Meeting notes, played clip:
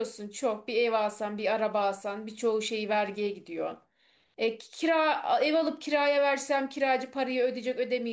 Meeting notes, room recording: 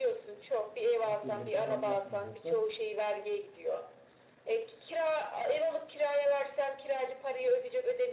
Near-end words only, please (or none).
asgari ücrete zam yapmayacaklar.